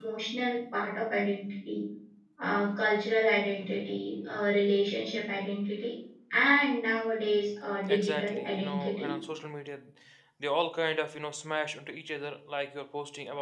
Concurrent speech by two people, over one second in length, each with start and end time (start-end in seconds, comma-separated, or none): 7.9-9.1